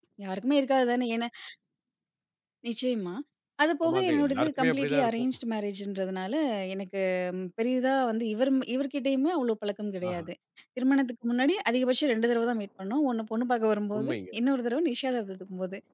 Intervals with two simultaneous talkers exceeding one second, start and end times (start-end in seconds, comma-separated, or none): 3.9-5.3